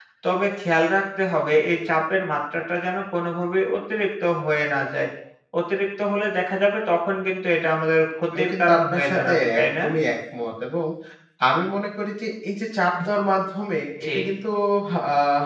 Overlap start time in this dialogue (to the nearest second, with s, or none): 8 s